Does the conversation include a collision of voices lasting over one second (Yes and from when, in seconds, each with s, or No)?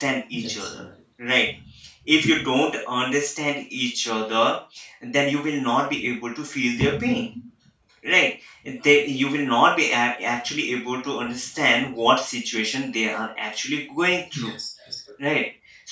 No